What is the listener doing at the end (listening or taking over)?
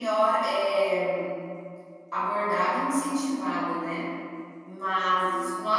listening